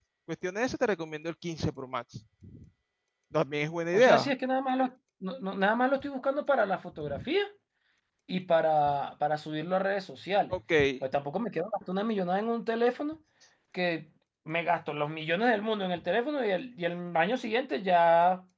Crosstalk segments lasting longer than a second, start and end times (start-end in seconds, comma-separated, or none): none